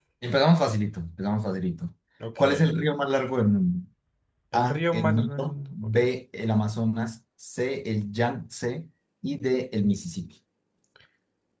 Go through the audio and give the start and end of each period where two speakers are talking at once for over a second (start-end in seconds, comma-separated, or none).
4.5-6.0